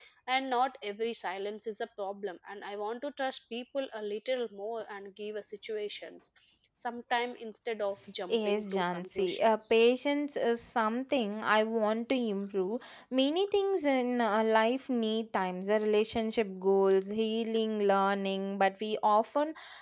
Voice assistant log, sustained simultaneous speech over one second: present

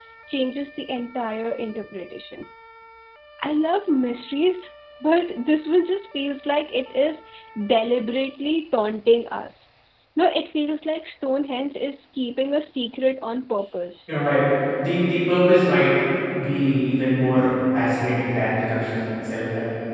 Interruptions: none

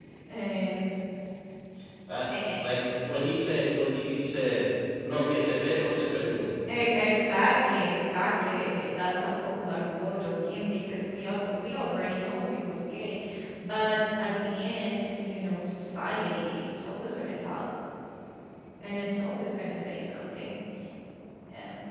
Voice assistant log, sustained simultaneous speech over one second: none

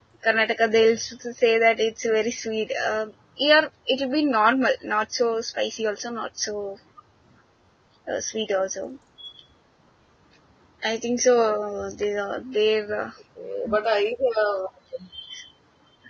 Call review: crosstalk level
none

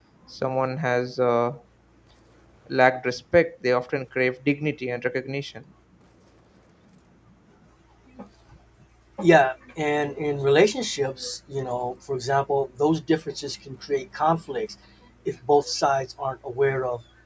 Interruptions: none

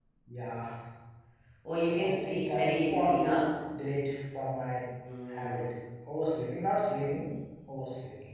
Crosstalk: present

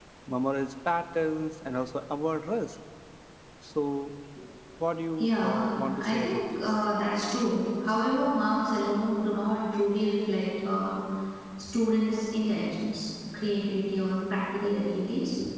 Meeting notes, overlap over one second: present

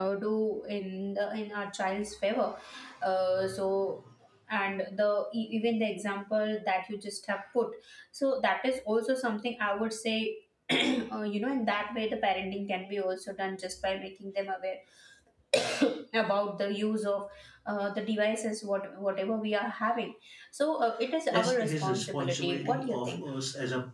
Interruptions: present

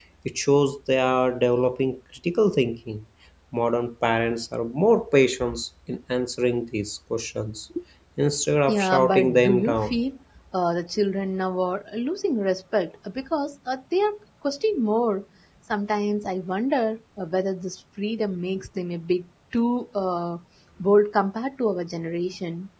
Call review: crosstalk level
present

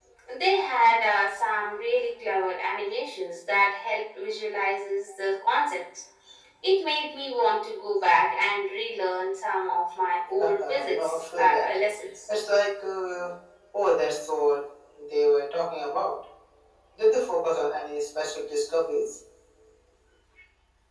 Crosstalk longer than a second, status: present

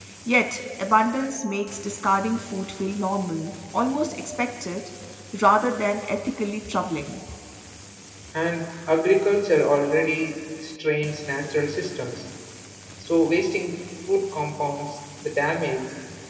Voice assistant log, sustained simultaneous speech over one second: none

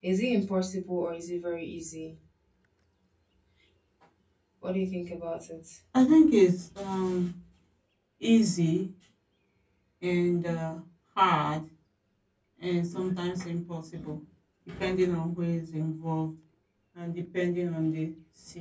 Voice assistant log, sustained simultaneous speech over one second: none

